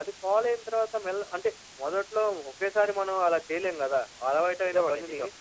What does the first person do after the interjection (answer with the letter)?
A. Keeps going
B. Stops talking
A